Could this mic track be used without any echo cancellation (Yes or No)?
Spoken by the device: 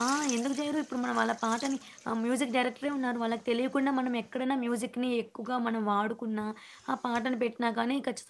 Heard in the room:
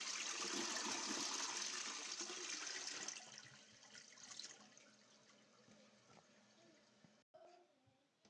Yes